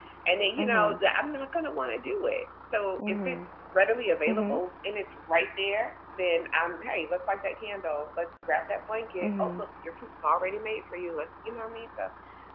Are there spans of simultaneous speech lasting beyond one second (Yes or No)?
No